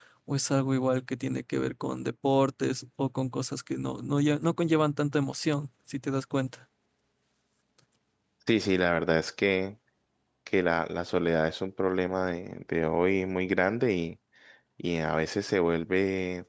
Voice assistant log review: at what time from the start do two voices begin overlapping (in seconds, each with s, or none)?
none